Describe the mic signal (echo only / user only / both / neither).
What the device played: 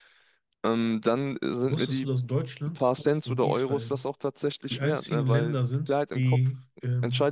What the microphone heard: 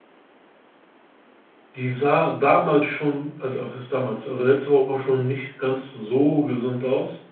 user only